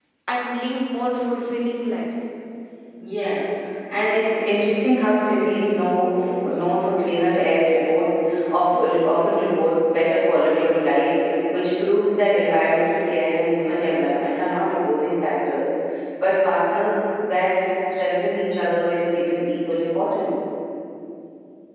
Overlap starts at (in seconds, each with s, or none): none